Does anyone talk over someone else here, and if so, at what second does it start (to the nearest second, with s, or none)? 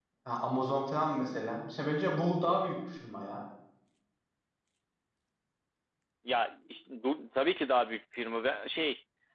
none